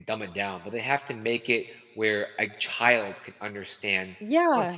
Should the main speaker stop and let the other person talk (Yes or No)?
Yes